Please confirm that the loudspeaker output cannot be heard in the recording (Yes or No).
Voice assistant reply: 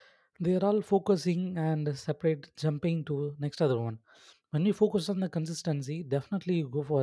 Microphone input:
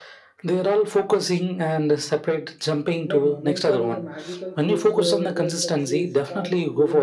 No